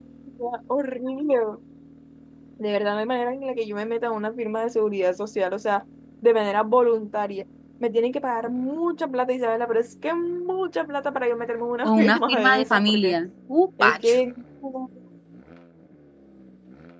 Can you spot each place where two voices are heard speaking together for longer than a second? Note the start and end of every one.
11.8-13.2

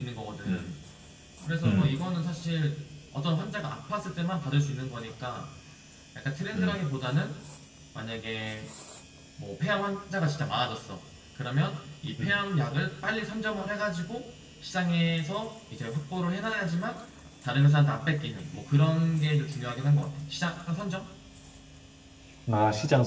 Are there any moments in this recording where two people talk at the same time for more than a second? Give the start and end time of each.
none

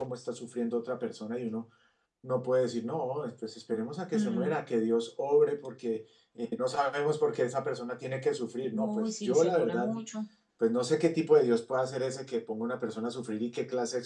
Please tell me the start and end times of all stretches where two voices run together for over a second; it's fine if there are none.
8.7-10.0

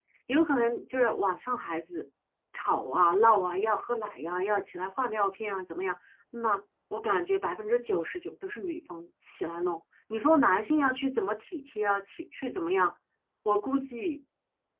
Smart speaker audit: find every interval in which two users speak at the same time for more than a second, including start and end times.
none

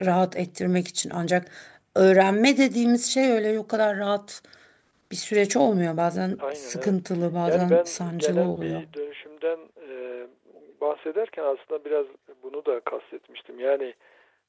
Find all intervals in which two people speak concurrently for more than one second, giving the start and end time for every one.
7.5-8.8

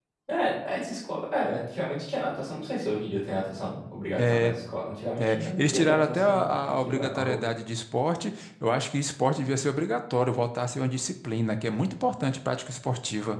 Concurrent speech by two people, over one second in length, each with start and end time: 5.2-7.4

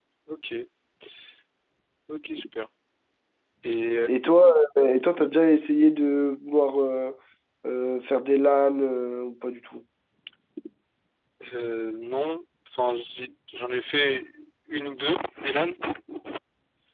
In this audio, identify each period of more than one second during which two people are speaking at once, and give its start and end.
none

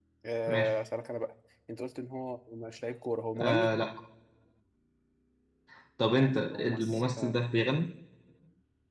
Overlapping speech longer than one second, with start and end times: 6.1-7.3

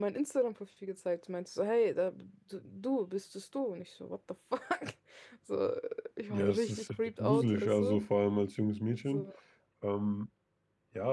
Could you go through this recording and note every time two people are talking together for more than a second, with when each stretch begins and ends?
6.3-8.0

